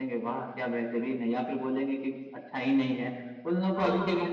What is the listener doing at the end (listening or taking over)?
listening